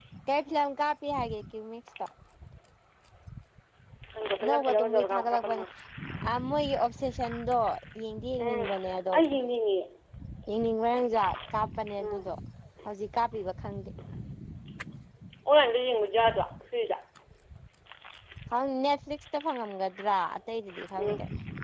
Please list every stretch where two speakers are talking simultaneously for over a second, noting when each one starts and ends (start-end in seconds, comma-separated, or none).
4.4-5.6